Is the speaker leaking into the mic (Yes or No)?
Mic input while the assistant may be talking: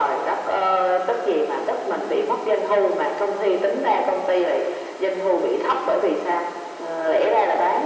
Yes